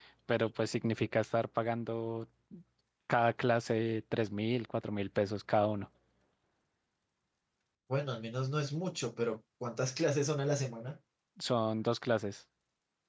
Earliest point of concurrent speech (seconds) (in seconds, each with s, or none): none